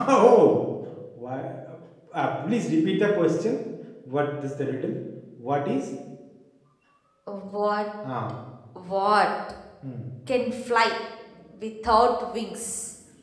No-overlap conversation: Yes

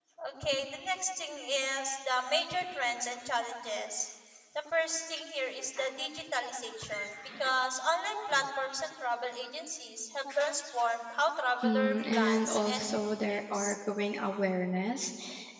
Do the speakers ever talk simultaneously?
Yes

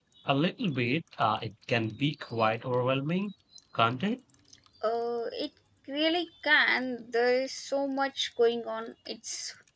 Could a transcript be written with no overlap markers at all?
Yes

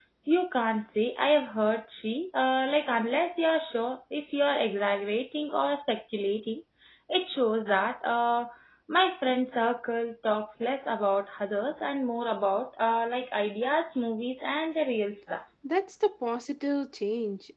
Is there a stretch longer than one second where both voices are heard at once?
No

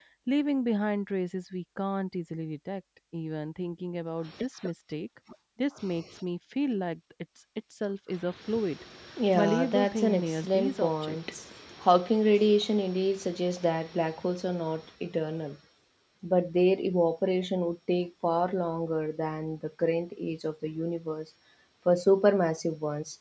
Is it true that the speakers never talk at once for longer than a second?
No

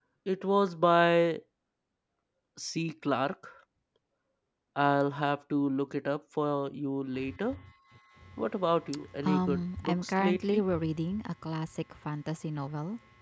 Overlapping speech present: Yes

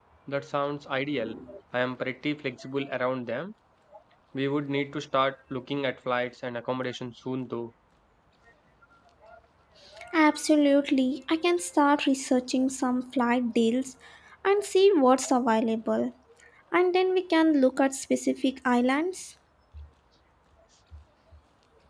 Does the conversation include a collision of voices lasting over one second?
No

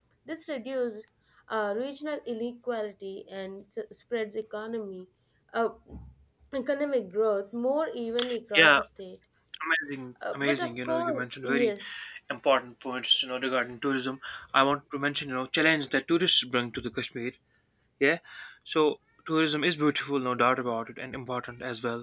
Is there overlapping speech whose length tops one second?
Yes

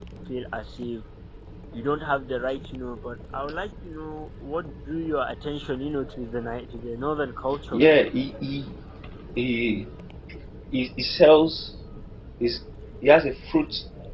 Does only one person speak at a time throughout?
Yes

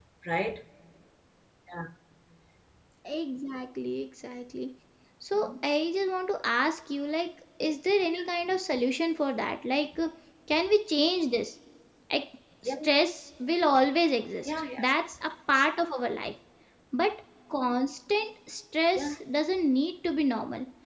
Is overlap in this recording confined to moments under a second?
Yes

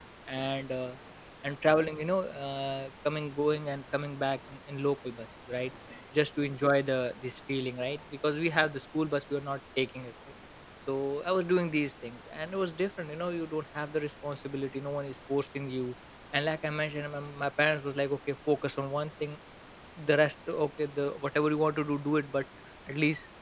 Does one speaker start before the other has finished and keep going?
No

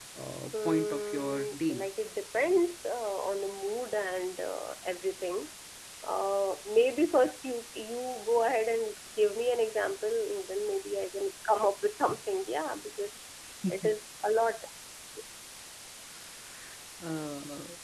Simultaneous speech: Yes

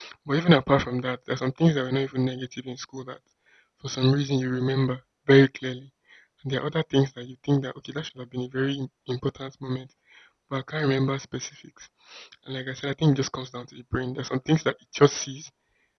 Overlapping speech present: No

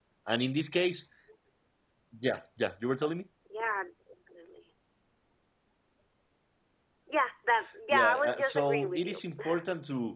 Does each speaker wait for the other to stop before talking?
No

